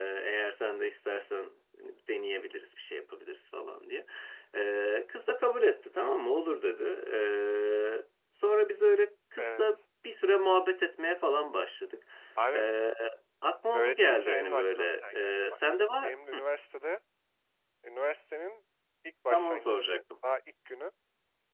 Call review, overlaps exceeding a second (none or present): present